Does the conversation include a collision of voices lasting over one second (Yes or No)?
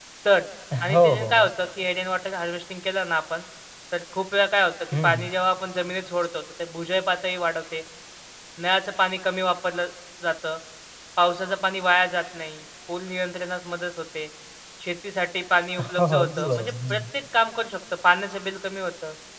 Yes